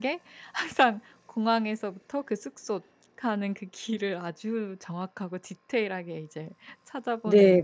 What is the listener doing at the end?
taking over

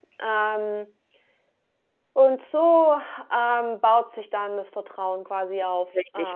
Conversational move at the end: taking over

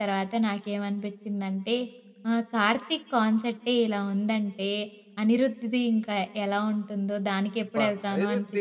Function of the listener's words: taking over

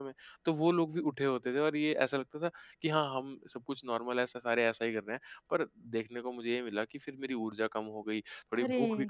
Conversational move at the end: listening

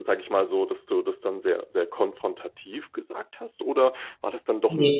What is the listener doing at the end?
listening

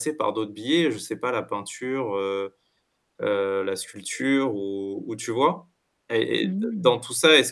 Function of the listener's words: listening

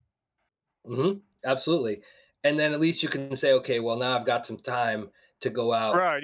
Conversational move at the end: taking over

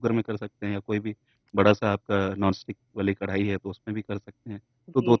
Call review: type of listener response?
listening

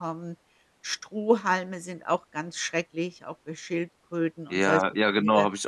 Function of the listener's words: taking over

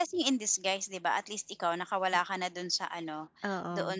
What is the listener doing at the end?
listening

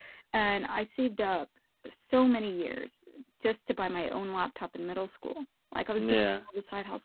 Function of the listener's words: listening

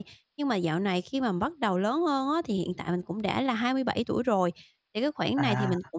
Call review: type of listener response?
listening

